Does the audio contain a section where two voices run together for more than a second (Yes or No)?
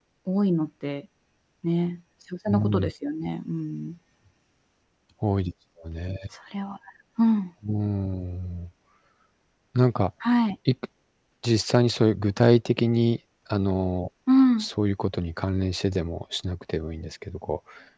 No